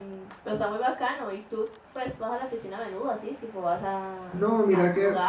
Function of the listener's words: taking over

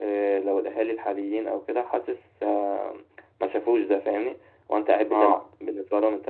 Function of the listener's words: listening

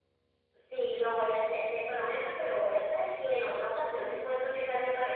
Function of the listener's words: listening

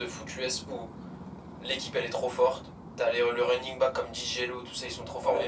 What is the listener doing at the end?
listening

